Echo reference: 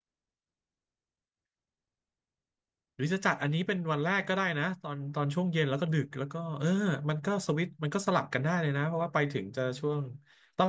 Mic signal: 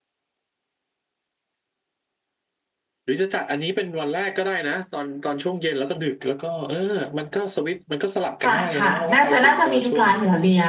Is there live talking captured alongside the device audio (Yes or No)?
Yes